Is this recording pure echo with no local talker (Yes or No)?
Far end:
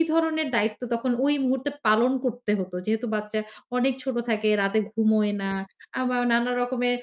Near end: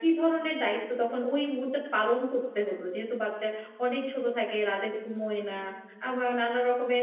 Yes